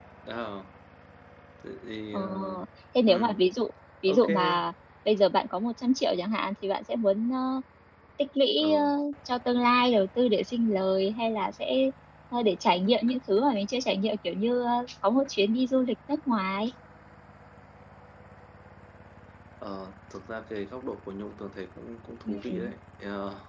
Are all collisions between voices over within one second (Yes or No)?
Yes